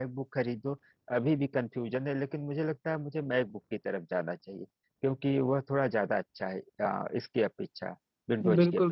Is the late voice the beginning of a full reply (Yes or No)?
Yes